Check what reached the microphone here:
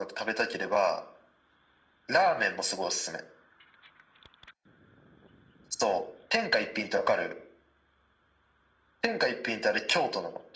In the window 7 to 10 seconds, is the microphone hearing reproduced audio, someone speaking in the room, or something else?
echo only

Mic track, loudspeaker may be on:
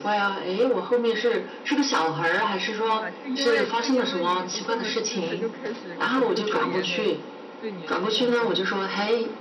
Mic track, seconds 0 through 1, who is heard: echo only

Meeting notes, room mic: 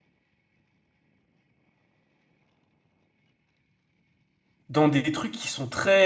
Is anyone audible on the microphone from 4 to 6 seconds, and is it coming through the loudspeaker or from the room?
user only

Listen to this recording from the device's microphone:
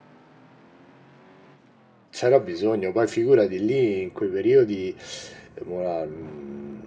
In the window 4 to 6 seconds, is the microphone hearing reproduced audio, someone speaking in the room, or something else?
user only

